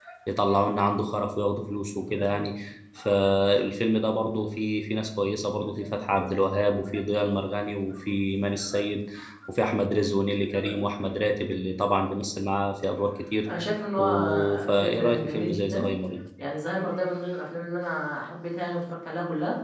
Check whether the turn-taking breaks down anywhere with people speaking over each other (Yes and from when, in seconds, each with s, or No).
Yes, from 14.0 s